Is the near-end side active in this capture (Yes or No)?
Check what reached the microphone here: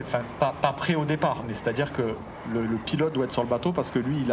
No